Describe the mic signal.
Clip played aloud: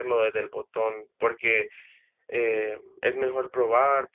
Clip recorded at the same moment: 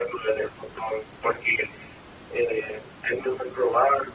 echo only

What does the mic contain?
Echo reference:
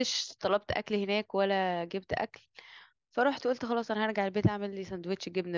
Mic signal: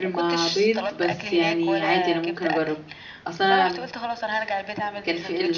both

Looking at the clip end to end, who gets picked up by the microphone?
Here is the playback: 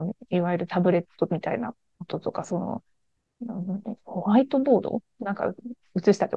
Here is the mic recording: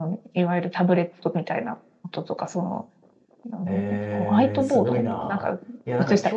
both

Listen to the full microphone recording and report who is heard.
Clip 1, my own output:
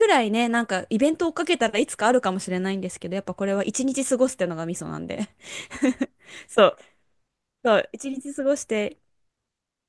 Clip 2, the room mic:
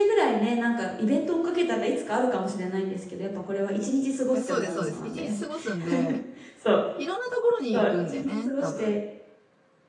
both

